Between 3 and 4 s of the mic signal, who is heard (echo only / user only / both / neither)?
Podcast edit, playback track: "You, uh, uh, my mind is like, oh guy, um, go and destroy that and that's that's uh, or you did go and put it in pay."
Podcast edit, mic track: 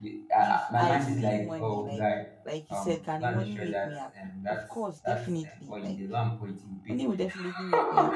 both